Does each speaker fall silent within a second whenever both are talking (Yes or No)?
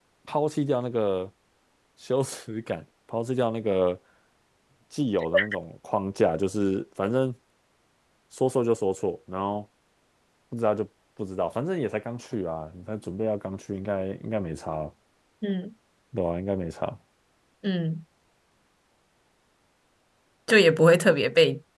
Yes